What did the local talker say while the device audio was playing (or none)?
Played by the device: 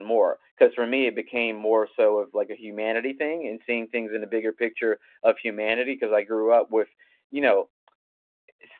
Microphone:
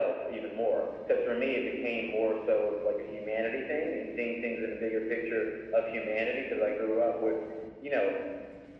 none